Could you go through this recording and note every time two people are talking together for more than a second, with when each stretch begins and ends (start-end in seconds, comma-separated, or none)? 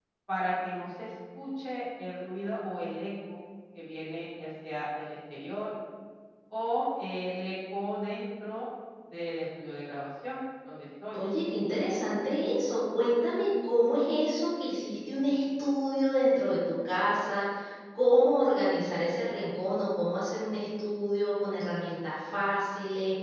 none